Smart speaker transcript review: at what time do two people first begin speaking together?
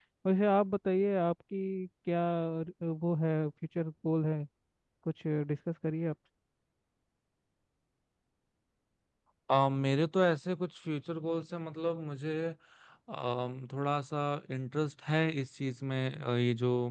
none

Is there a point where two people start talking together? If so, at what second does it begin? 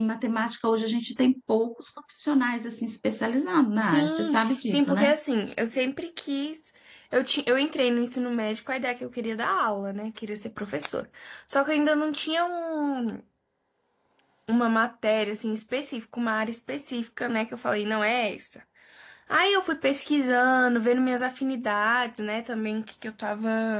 3.8 s

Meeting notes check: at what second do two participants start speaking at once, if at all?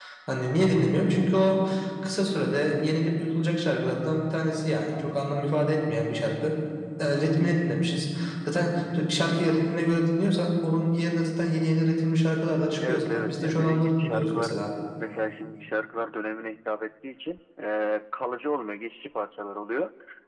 12.8 s

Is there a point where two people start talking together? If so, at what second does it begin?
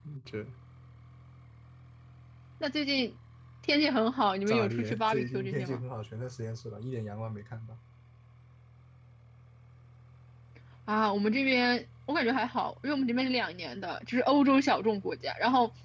4.5 s

